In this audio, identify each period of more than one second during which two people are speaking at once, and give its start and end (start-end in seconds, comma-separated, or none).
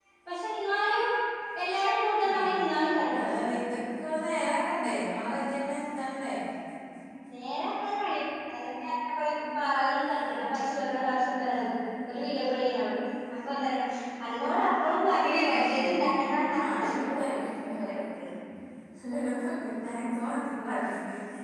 none